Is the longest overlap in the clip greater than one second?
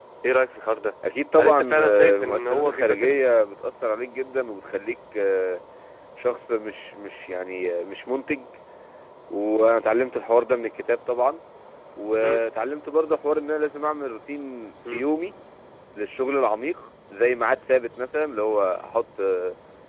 Yes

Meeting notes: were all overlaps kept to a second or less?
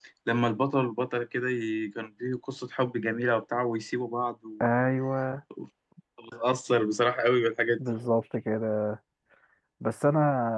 Yes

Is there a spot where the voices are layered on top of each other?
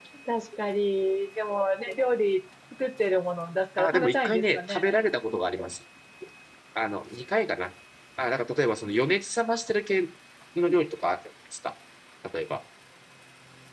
Yes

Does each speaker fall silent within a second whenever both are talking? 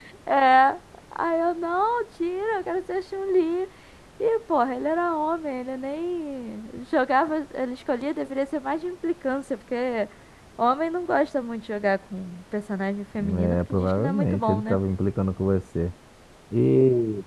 No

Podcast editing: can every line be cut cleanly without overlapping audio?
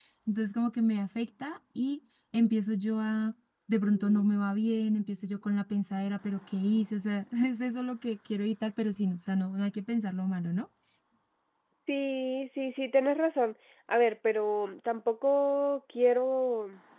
Yes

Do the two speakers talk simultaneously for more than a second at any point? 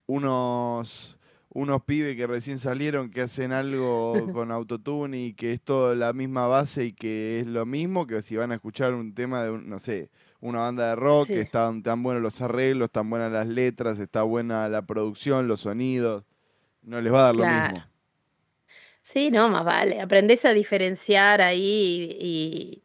No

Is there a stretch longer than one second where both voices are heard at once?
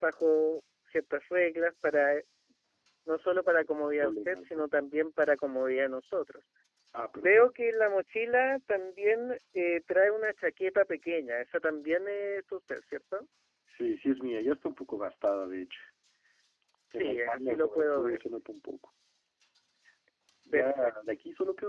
Yes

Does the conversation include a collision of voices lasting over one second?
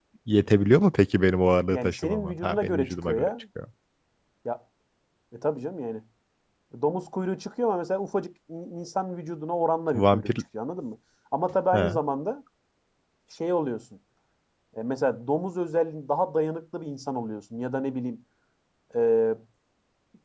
Yes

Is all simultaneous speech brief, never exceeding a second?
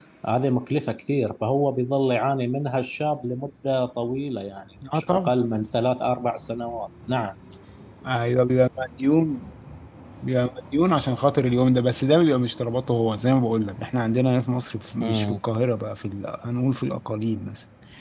Yes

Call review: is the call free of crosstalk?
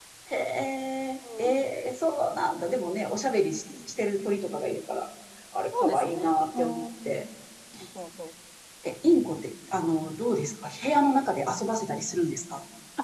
No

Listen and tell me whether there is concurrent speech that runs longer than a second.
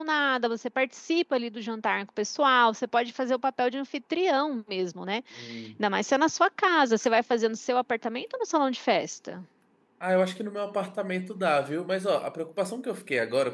No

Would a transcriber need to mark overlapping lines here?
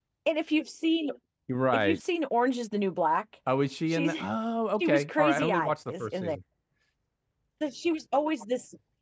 Yes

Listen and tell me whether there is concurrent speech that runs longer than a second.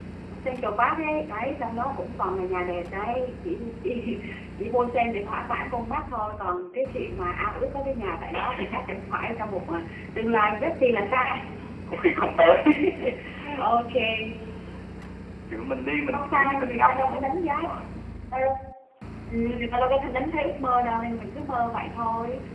Yes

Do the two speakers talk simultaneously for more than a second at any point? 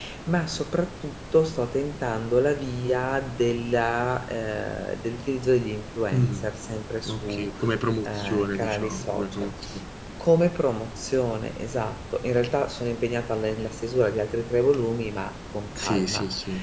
Yes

